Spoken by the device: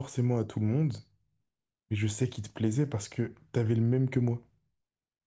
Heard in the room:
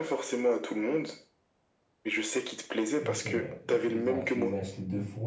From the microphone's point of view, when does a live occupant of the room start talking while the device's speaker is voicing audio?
3.0 s

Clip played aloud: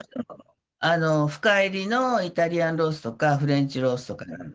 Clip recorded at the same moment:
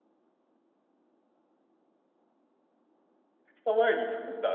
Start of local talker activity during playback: 3.5 s

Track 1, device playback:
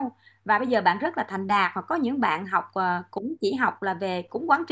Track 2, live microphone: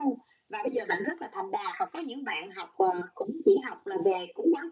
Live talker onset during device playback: none

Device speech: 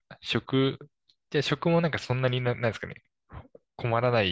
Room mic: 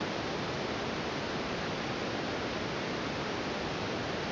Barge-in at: none

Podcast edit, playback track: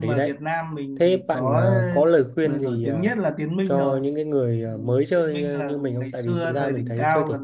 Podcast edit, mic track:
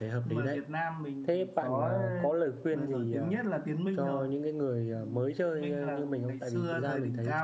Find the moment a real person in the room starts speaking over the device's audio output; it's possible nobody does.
none

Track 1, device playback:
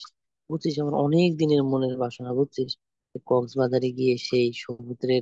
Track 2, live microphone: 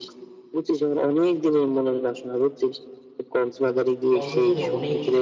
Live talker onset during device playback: 4.1 s

